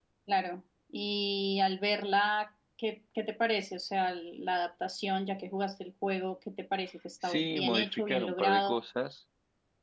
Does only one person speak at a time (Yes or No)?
No